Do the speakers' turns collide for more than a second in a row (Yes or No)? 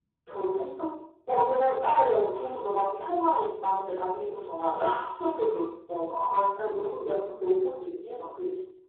No